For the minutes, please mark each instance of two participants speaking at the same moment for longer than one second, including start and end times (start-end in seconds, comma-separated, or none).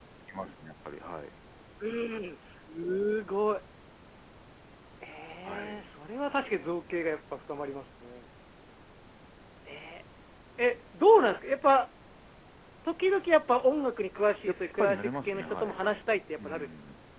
14.5-15.8